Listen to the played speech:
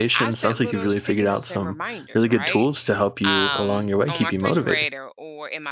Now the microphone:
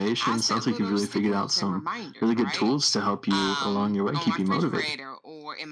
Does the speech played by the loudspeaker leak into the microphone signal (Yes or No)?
Yes